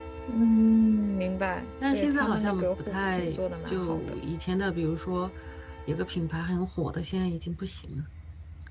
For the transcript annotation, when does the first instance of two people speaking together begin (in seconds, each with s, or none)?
1.9 s